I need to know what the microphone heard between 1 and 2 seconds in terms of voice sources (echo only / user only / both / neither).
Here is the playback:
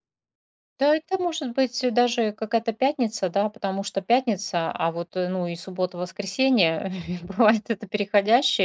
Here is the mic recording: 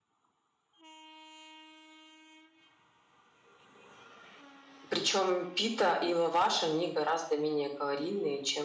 neither